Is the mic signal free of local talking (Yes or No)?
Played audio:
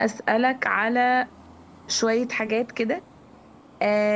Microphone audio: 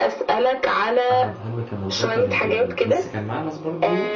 No